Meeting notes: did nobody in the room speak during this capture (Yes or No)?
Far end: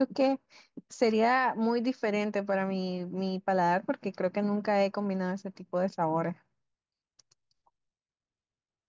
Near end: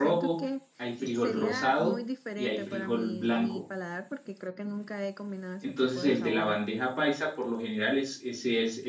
No